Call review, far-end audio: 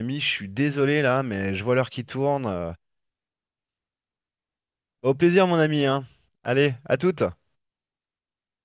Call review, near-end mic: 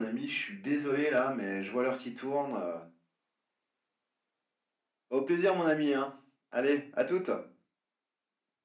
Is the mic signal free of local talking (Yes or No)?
Yes